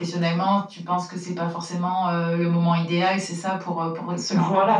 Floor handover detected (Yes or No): Yes